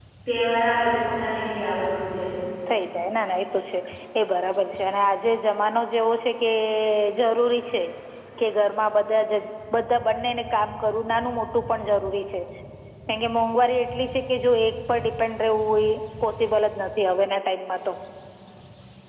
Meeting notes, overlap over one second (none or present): none